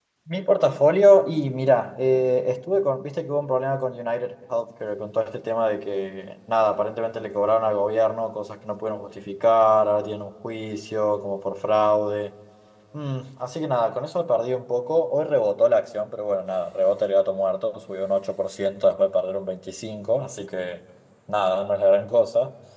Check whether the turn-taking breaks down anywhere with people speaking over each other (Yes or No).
No